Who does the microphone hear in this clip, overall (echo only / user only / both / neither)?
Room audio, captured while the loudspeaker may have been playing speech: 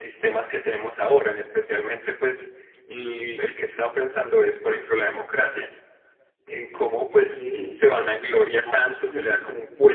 both